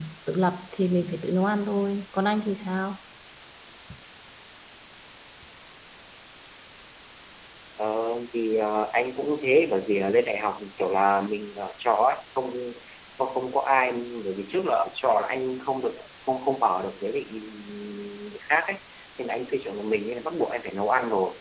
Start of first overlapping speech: none

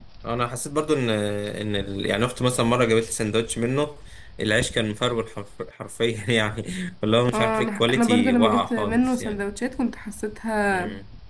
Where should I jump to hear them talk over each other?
7.3 s

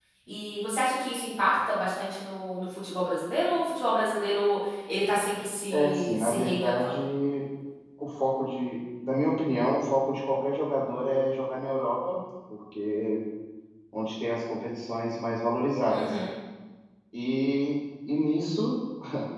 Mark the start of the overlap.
5.7 s

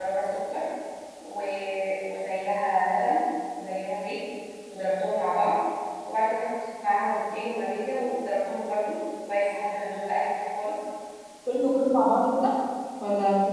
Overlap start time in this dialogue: none

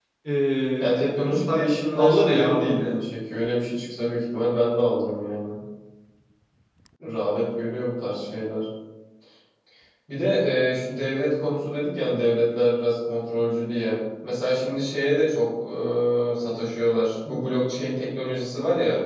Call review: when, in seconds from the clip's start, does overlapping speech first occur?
0.8 s

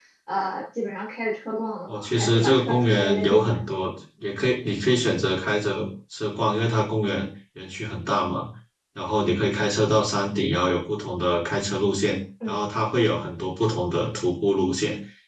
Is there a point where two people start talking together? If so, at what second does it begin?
1.9 s

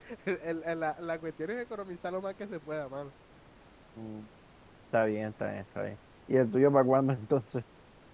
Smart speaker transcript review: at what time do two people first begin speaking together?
none

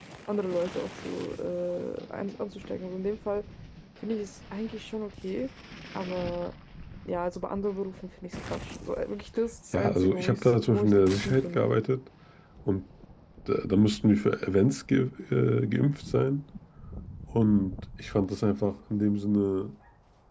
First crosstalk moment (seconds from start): 9.7 s

